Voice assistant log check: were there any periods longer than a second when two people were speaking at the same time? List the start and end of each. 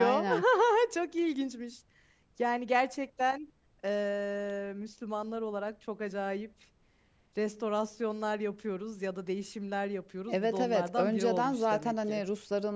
10.3-12.2

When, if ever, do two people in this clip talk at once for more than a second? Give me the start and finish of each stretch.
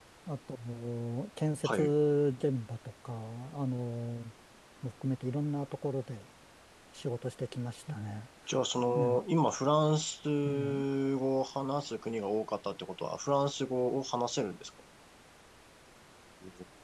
none

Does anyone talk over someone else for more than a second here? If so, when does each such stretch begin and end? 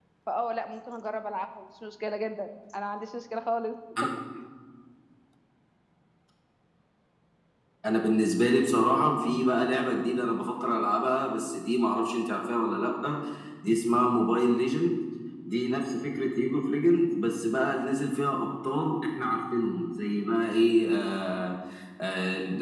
none

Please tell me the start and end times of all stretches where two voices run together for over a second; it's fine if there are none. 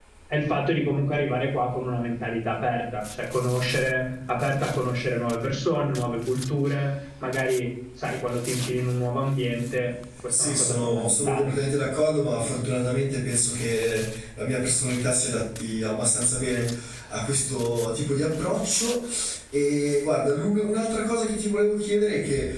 10.3-11.5

